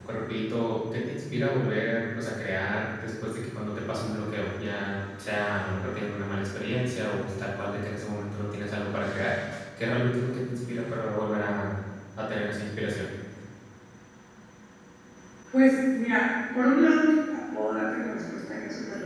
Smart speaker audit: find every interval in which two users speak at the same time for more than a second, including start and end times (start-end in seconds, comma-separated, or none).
none